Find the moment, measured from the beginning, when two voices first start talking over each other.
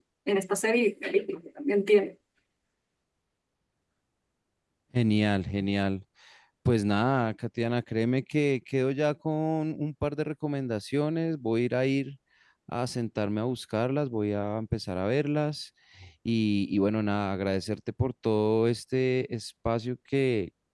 none

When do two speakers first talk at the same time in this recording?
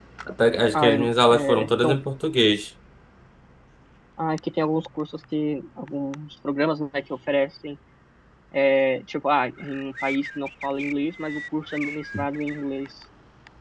0.7 s

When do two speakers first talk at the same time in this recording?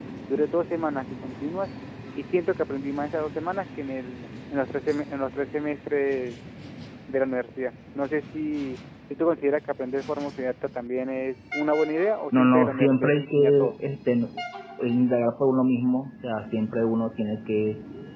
12.3 s

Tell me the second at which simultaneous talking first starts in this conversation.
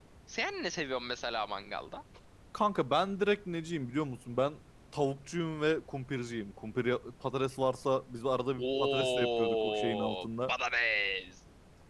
8.6 s

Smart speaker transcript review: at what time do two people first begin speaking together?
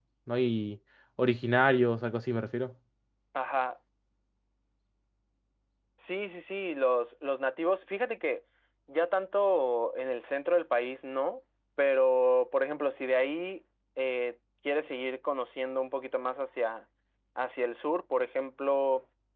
none

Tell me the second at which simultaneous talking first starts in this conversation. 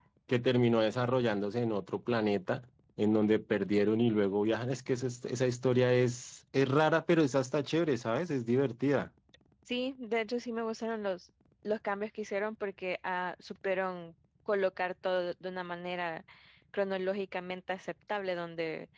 none

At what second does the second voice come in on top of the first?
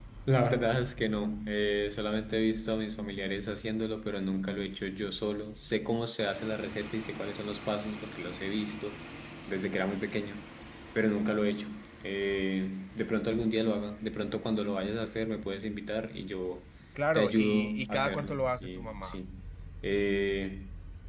17.1 s

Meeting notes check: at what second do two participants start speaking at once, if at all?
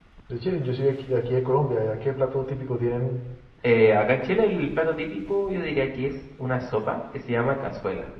none

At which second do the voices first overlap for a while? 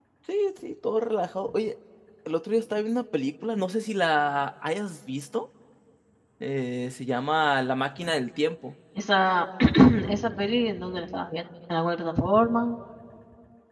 none

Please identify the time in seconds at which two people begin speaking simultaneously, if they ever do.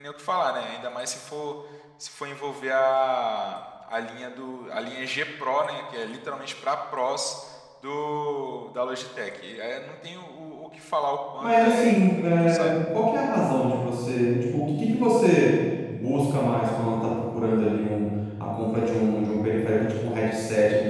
11.4 s

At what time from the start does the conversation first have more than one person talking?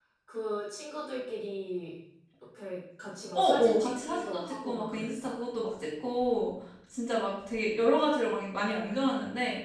3.3 s

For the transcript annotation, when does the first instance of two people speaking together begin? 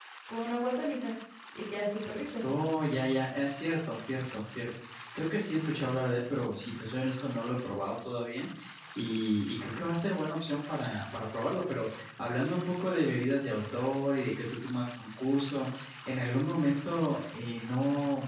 none

